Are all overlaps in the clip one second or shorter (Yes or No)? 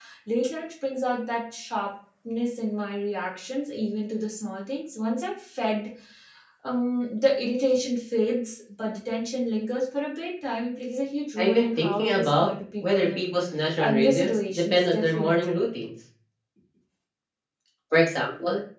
No